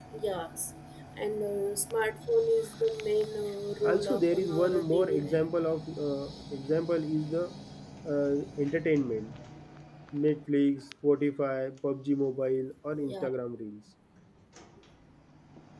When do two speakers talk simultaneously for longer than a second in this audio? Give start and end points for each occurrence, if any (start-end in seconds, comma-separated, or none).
3.8-5.5